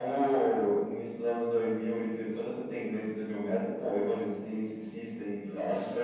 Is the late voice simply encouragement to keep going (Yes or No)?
Yes